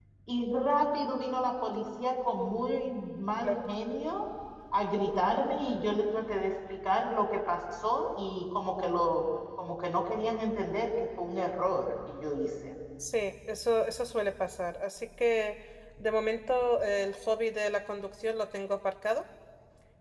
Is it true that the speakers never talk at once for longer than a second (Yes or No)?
Yes